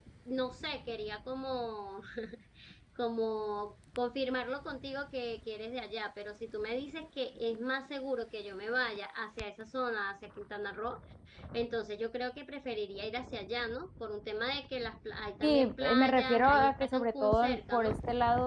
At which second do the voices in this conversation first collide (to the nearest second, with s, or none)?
15 s